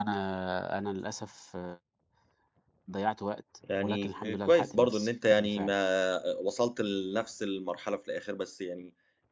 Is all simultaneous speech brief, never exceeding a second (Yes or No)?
No